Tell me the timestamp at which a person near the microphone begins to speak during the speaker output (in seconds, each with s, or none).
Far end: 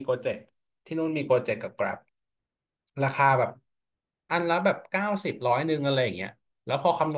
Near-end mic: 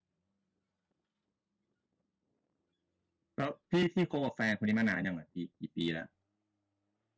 3.4 s